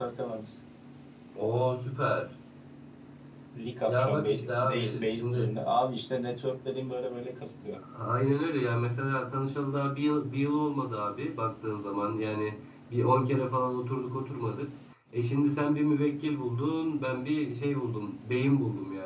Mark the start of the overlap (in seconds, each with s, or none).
3.9 s